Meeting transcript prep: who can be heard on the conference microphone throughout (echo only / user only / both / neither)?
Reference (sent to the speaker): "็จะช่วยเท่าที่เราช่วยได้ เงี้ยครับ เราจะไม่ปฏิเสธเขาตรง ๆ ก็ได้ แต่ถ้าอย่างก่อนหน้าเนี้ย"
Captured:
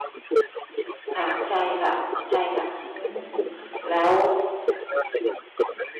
both